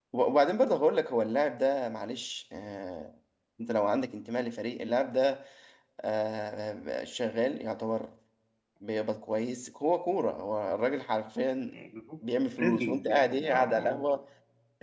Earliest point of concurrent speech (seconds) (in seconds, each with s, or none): 12.6 s